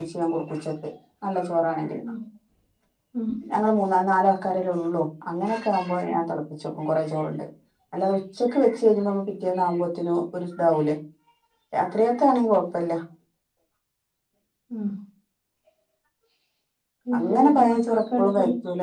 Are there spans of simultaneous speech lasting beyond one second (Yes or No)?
Yes